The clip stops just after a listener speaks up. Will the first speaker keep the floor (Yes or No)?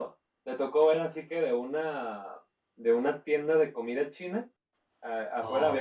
Yes